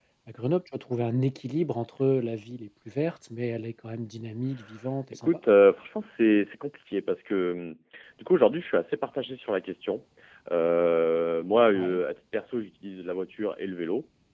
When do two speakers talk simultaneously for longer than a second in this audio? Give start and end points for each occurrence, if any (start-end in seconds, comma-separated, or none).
none